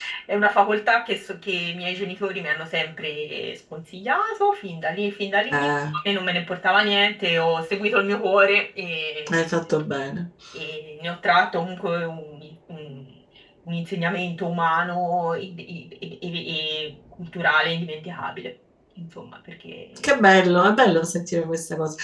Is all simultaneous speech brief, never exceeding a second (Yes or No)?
Yes